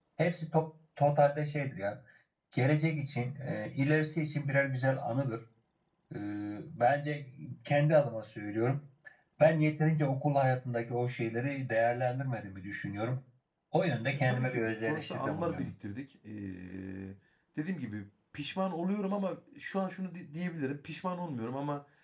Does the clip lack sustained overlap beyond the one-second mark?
No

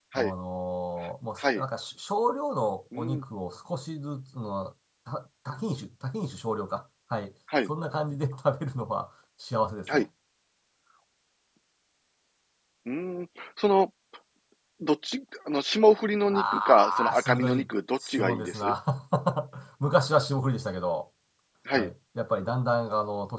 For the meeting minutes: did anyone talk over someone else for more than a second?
Yes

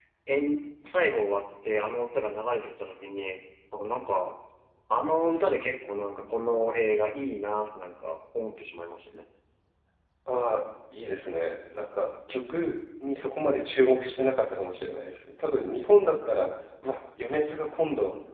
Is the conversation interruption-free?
Yes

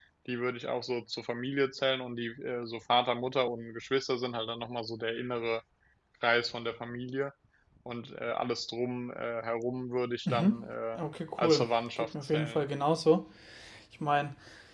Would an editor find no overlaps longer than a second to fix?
No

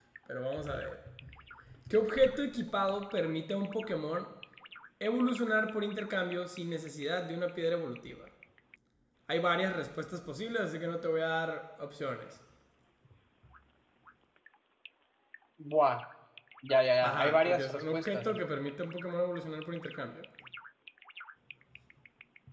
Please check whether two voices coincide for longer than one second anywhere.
Yes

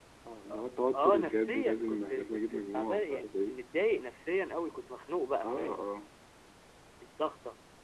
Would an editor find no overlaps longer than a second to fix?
No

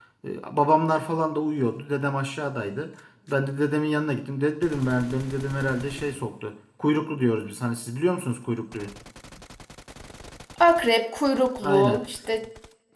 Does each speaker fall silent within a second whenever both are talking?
Yes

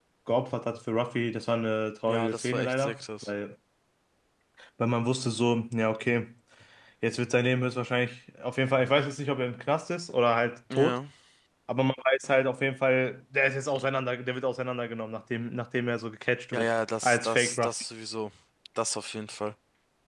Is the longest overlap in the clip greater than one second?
Yes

